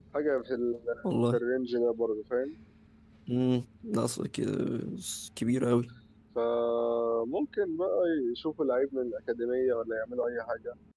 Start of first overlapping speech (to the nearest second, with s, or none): none